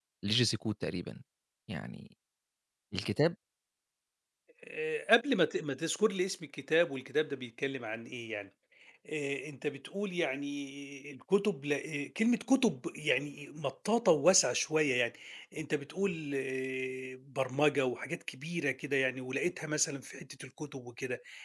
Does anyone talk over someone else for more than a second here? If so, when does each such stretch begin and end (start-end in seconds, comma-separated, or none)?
none